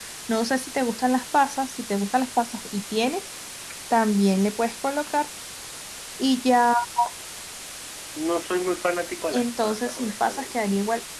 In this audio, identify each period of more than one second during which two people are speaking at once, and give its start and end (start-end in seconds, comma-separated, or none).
9.3-10.6